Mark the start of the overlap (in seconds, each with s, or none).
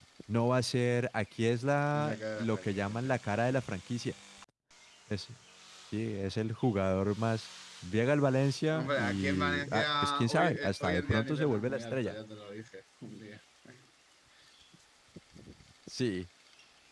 1.9 s